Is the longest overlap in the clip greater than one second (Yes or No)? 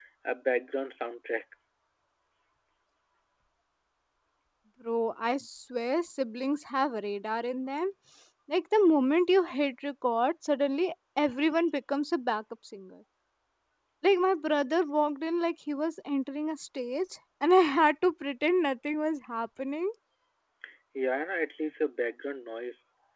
No